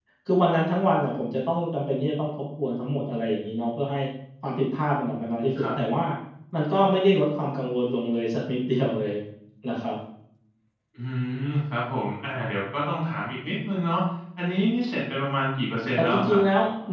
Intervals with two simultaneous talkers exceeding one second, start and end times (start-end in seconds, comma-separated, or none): none